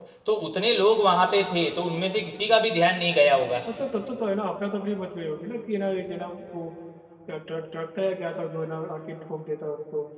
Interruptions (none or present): none